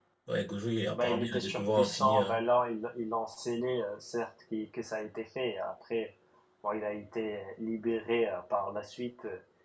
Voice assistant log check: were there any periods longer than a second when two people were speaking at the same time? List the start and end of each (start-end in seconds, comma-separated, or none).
0.9-2.4